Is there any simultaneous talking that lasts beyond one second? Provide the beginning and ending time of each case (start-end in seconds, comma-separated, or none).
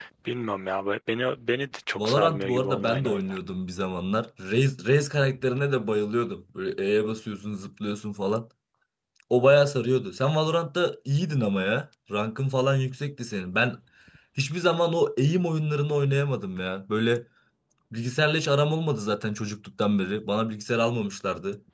2.0-3.4